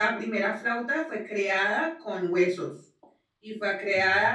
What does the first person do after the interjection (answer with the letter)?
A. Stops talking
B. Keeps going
B